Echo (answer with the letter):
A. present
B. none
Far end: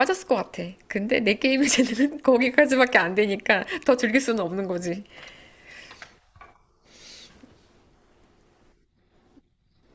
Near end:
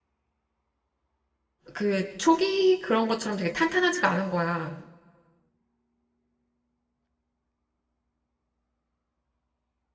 B